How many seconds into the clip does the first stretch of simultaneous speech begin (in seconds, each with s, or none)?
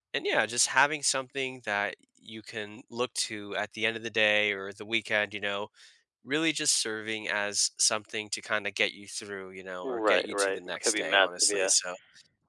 9.8 s